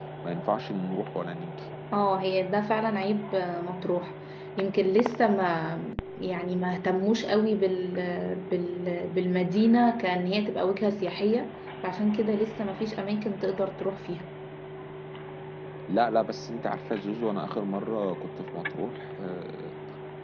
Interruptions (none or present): none